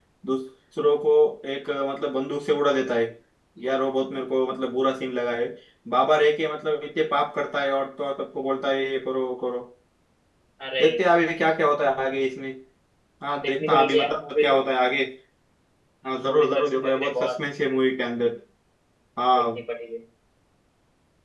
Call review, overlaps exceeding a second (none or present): present